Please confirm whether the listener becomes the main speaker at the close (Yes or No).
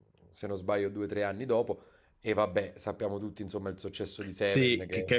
Yes